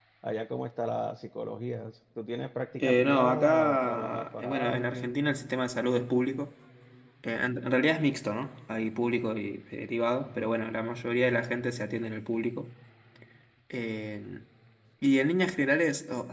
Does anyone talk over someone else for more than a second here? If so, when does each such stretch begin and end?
2.8-5.2

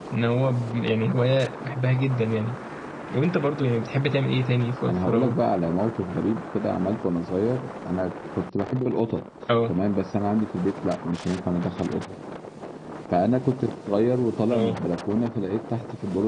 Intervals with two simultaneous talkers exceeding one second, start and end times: none

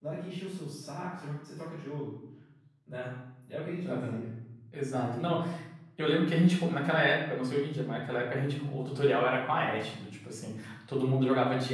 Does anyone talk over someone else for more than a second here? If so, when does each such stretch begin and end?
none

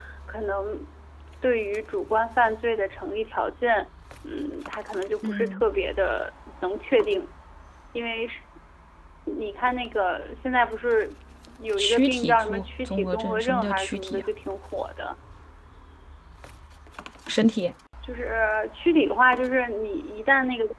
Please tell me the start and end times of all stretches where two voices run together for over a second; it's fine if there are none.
11.8-14.3

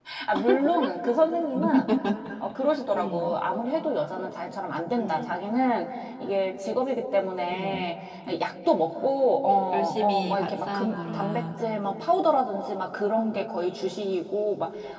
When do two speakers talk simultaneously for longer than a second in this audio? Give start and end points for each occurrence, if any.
9.7-11.4

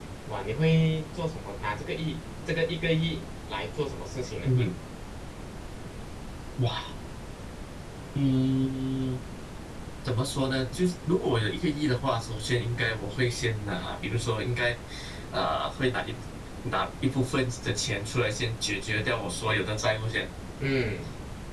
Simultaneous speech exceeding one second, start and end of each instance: none

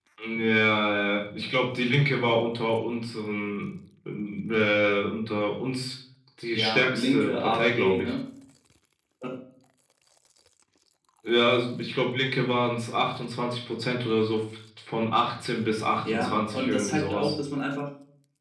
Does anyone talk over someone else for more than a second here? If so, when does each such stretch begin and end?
6.5-8.1, 16.0-17.3

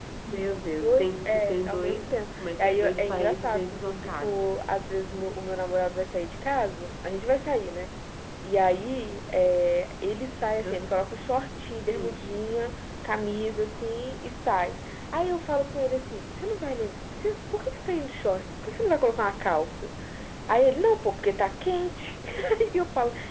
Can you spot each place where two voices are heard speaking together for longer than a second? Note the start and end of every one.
0.8-4.5

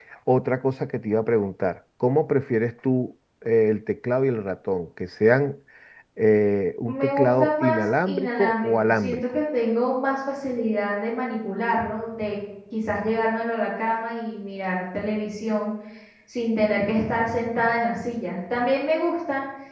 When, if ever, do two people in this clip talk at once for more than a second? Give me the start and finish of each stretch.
6.9-9.2

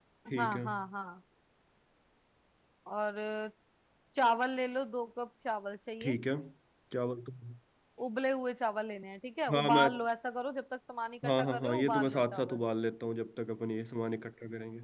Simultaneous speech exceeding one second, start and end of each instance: 11.2-12.6

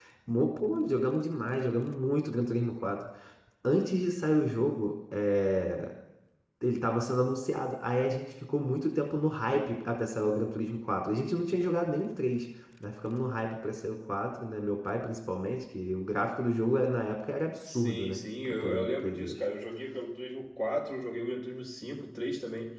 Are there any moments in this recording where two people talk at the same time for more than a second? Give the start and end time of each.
17.8-19.4

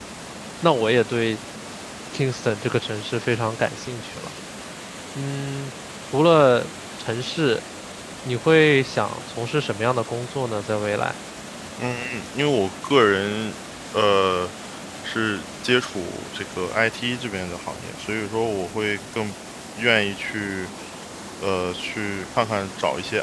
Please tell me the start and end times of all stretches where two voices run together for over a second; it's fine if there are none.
none

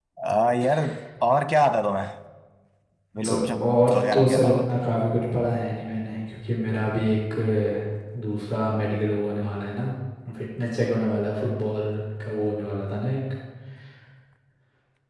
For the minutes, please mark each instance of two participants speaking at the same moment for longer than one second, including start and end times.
3.3-4.5

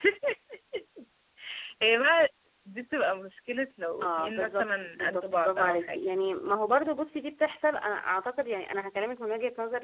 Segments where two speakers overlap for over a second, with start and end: 4.0-6.0

